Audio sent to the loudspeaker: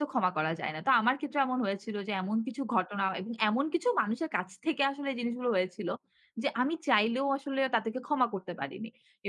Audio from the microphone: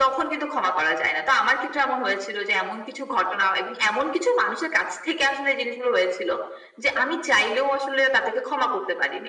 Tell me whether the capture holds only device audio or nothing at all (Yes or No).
Yes